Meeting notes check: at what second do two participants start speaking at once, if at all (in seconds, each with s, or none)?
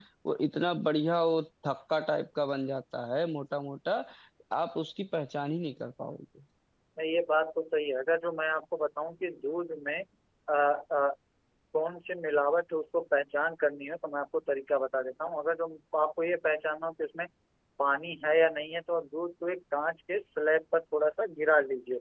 none